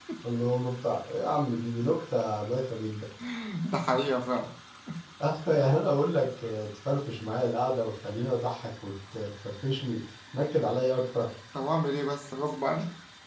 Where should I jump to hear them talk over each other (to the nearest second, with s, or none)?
none